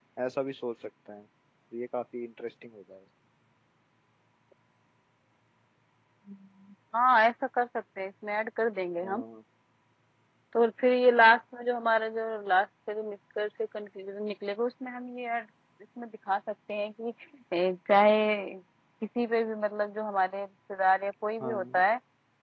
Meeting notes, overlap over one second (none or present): none